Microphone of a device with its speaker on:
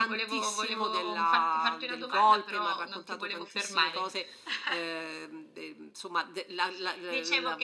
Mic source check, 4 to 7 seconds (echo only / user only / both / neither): echo only